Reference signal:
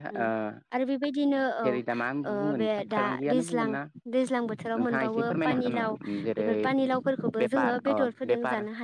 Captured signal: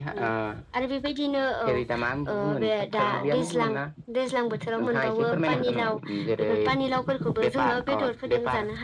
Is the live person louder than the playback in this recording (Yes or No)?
No